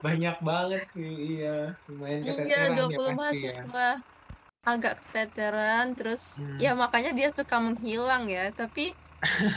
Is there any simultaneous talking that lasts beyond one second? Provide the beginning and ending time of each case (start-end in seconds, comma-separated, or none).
2.2-3.5